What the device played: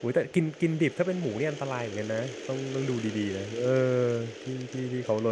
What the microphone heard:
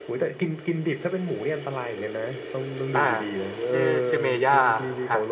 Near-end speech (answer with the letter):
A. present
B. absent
A